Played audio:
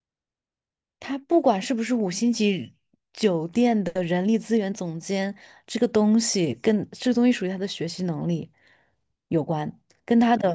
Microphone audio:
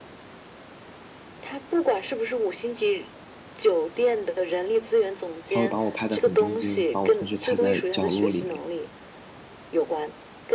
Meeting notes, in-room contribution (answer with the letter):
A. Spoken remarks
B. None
A